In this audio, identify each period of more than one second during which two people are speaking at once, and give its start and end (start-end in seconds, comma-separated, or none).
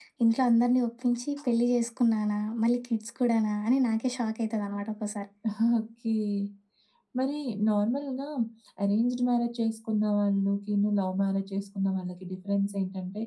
none